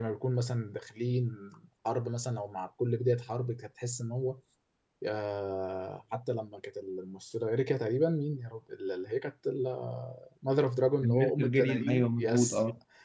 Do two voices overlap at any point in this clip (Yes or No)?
Yes